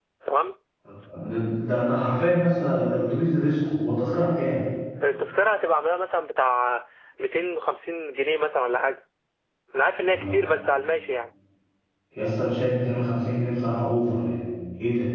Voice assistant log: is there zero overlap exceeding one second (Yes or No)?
Yes